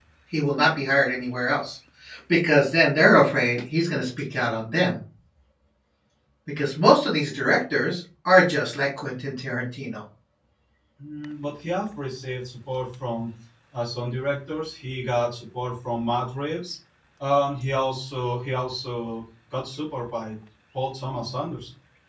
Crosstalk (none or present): none